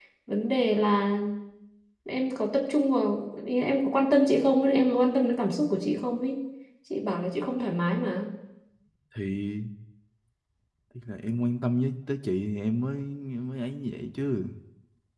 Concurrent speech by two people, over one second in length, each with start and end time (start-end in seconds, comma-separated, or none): none